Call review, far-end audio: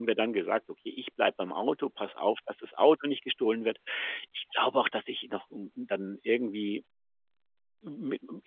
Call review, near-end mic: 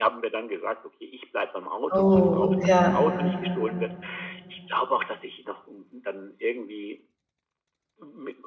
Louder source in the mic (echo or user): user